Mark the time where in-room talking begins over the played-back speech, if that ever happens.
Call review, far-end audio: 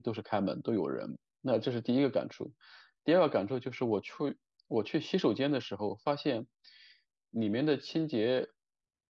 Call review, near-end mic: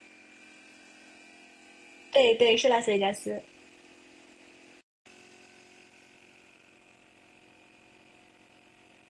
2.1 s

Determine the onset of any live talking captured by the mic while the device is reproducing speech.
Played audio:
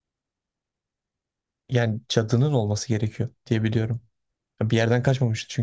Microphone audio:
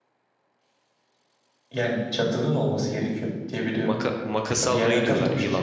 3.9 s

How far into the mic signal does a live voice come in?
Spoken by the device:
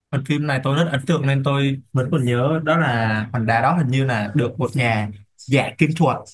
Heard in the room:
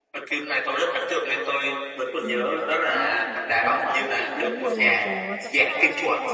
2.2 s

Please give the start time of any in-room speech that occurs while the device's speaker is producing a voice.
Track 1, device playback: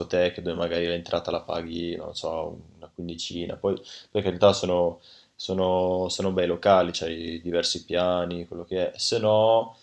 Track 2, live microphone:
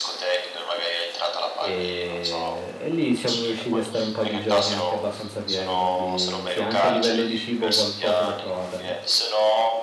1.5 s

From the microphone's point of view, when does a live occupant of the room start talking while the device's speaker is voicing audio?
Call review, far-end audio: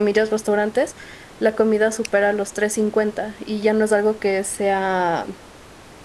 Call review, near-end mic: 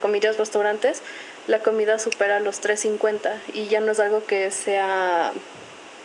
none

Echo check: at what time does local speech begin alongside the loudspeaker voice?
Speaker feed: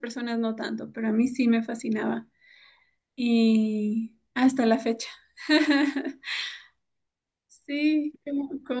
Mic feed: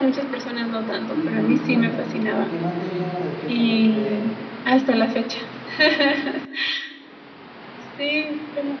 1.1 s

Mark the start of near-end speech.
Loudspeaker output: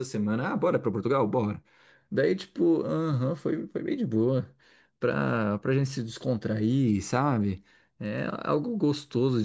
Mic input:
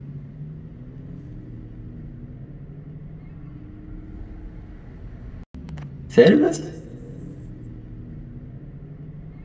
6.1 s

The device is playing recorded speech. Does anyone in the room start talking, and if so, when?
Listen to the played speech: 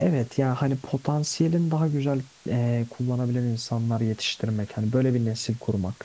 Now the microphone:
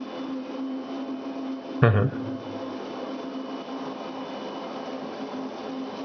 1.8 s

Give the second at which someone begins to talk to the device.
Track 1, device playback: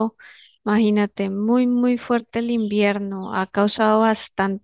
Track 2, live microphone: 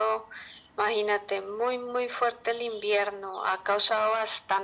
none

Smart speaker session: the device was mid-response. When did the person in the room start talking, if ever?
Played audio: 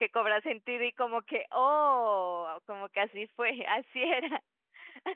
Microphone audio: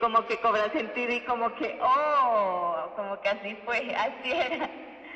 none

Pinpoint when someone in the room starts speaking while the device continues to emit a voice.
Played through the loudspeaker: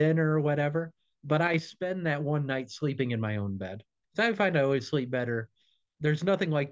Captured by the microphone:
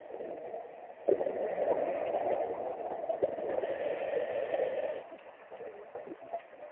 none

